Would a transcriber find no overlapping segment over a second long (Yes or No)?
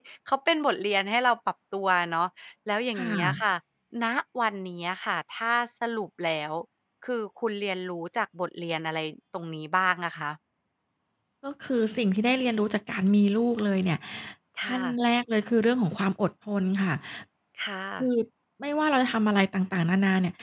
Yes